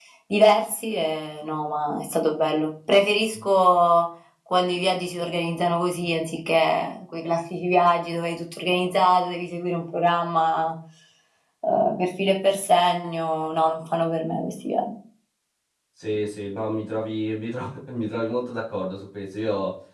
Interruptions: none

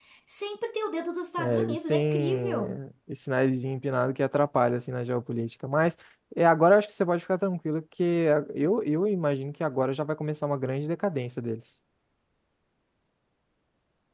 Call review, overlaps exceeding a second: present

